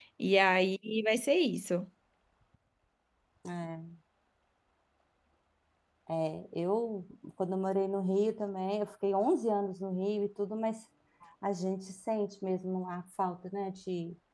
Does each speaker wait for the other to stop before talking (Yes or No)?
Yes